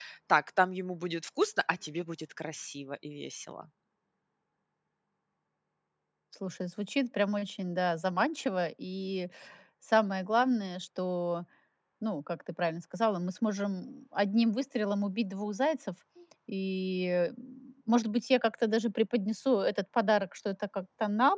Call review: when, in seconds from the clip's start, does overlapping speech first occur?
none

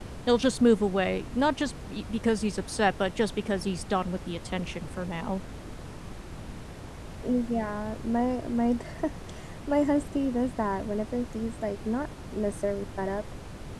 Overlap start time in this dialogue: none

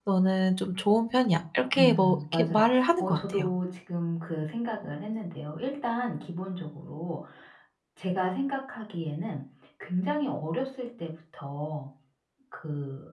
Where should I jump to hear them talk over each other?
1.7 s

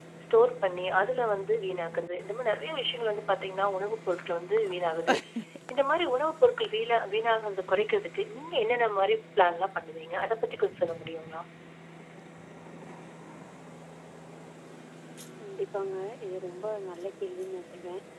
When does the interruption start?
none

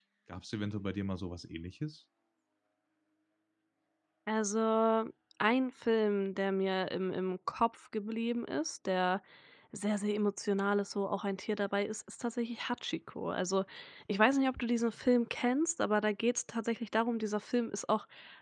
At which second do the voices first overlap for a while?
none

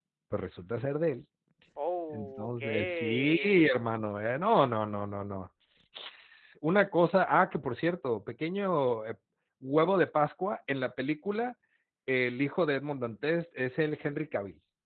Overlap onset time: 2.1 s

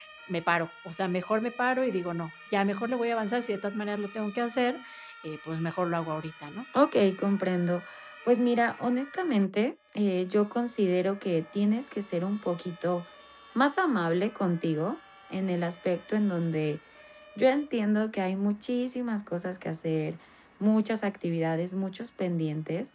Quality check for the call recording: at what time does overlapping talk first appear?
none

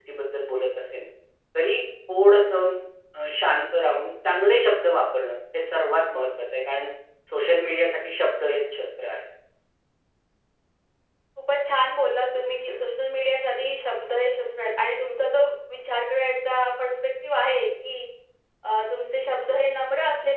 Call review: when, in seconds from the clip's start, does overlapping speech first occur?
none

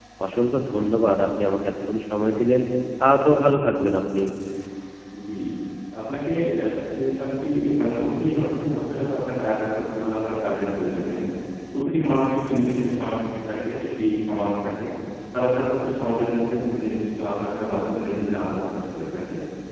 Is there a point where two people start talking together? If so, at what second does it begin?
none

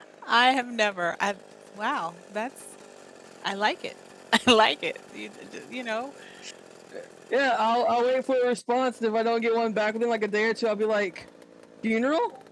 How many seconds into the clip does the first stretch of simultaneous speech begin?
none

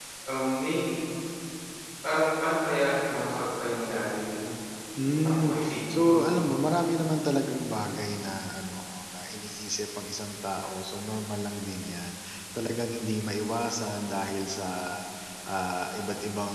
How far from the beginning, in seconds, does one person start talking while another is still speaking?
5.0 s

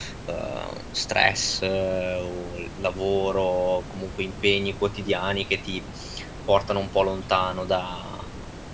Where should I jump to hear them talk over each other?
none

